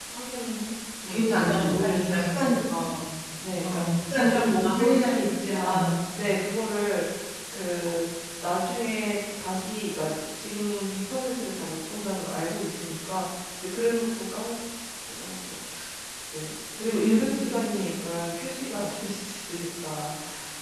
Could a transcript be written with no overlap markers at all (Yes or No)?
No